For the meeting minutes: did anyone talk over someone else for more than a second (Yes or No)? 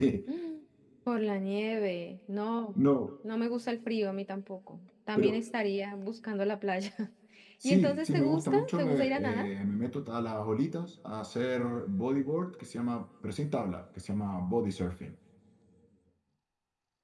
Yes